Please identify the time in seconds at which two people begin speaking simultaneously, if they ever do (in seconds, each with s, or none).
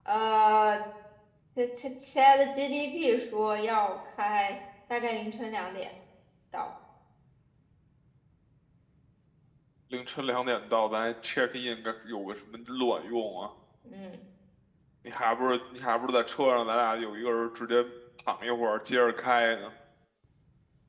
none